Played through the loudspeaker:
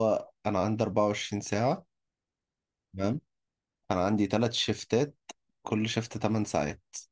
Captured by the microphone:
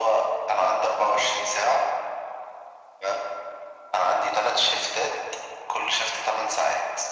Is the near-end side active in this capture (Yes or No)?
No